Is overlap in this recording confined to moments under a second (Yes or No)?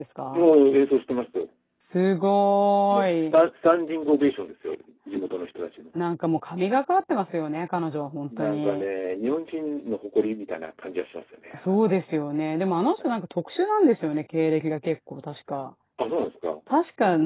Yes